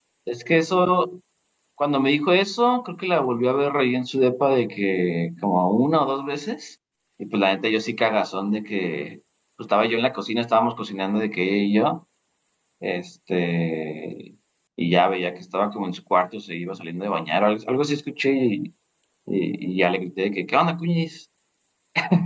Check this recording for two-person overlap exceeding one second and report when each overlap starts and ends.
none

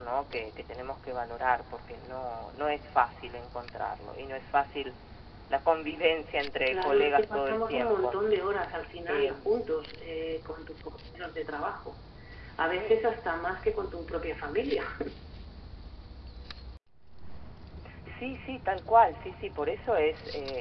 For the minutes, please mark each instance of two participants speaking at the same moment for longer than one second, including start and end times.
6.7-8.2

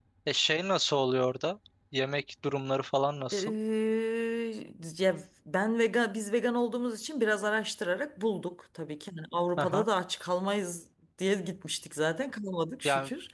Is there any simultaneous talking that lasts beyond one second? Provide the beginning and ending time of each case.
none

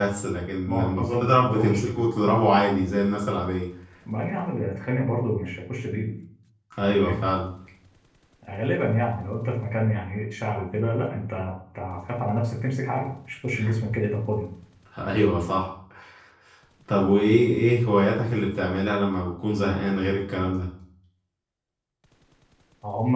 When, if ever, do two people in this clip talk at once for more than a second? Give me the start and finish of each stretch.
0.7-2.0

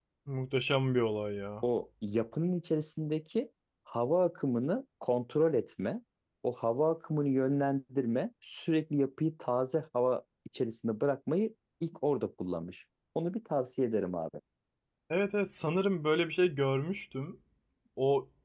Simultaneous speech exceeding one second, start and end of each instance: none

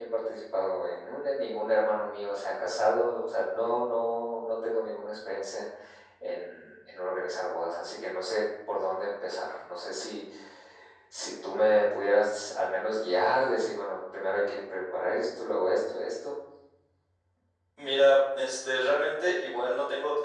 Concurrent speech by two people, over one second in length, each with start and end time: none

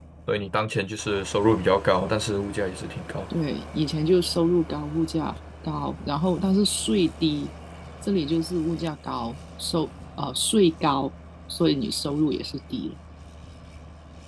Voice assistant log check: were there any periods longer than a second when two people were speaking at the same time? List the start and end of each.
none

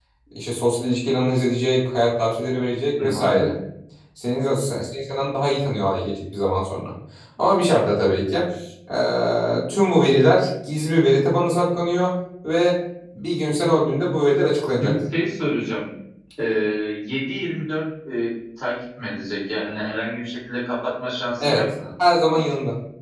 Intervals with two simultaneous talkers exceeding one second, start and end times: none

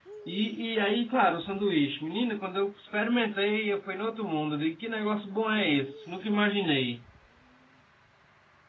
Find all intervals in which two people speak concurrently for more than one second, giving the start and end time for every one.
none

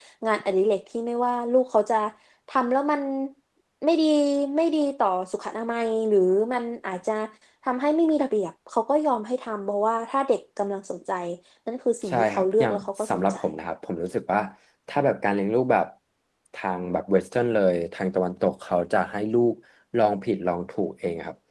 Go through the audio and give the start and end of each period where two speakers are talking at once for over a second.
12.1-13.3

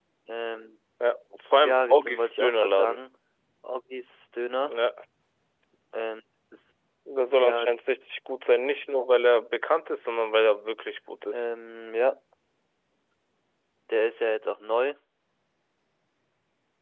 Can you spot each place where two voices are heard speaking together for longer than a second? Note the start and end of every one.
1.6-3.0

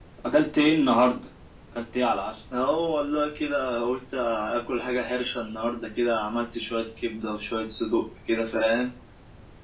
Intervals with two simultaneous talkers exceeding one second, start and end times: none

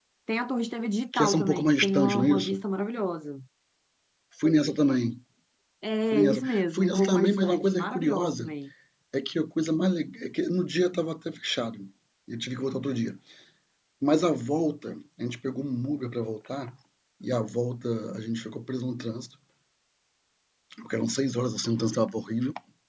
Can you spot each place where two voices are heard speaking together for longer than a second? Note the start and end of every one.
1.1-2.6, 6.1-8.5

